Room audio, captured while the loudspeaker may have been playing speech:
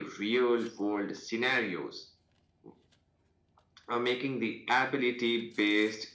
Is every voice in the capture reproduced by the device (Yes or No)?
Yes